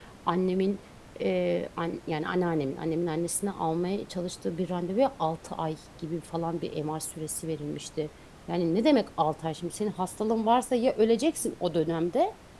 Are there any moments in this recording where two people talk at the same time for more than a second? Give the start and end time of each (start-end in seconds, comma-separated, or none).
none